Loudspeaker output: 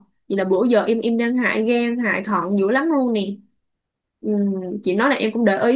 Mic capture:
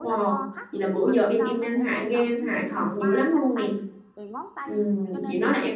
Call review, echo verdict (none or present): present